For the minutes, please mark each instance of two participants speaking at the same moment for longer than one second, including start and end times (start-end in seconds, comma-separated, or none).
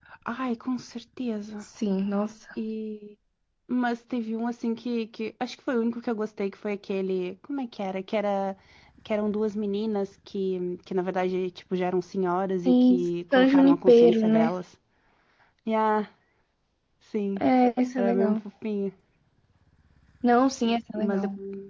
12.7-14.5